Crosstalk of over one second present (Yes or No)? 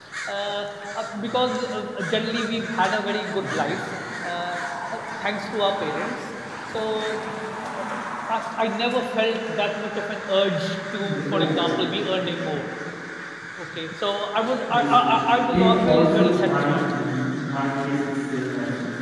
Yes